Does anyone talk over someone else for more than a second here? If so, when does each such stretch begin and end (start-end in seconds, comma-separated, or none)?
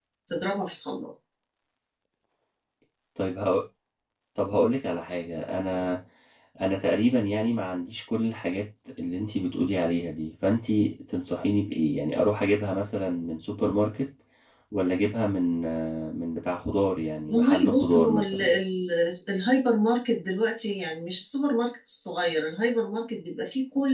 17.3-18.5